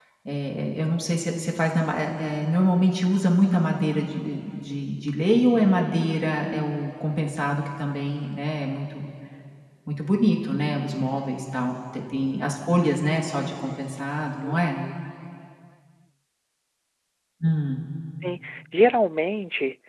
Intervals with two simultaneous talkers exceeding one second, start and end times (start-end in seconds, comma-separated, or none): none